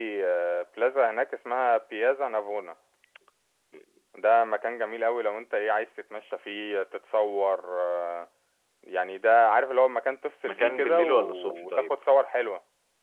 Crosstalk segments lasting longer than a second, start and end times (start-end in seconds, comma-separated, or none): 10.4-11.9